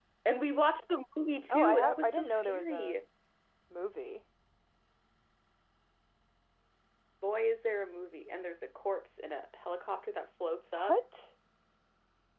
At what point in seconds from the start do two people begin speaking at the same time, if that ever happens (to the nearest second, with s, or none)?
1 s